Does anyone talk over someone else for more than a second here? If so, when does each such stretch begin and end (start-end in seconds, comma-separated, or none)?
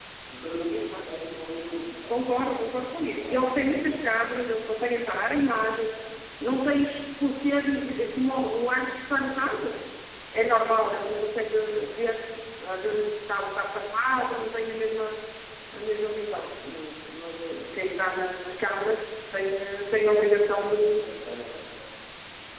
none